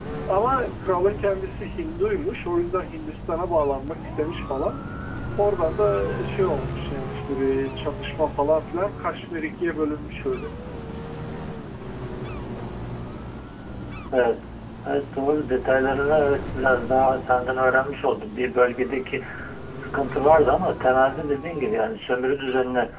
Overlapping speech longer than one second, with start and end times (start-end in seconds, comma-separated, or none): none